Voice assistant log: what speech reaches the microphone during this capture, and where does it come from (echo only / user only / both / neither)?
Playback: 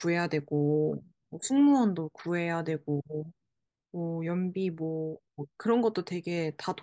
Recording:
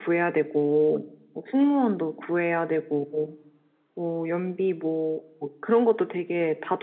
echo only